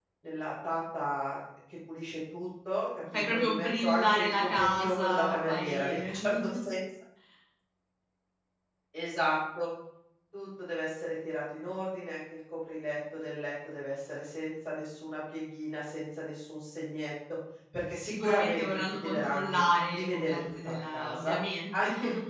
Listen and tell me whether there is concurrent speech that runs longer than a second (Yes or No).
Yes